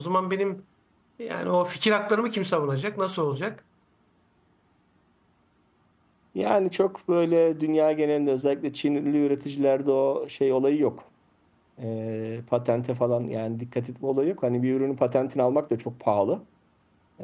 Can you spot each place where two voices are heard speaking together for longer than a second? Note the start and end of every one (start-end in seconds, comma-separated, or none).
none